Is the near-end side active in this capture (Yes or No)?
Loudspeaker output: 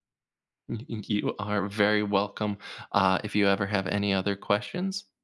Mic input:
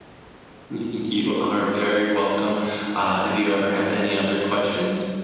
No